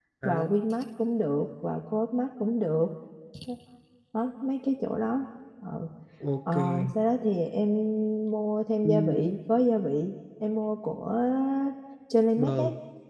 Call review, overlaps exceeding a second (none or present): none